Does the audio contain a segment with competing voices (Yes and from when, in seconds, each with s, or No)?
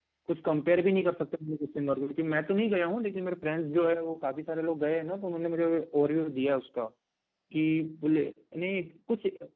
No